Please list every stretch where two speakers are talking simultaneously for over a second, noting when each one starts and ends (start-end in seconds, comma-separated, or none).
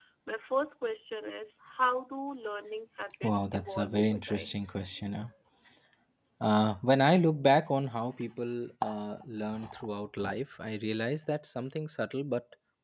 3.2-4.5